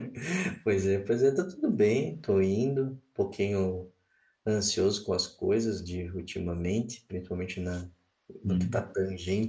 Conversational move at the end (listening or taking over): listening